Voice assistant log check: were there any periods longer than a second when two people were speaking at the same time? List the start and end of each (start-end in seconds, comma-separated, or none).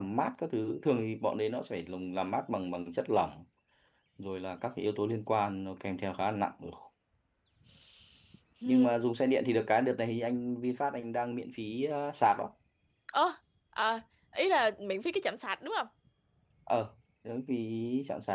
none